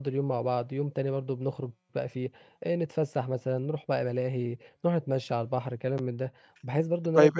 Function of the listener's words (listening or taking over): taking over